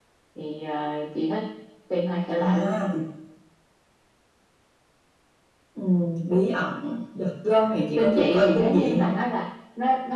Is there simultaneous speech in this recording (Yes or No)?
Yes